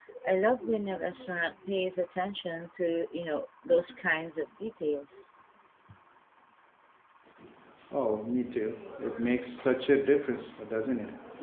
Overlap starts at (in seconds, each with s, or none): none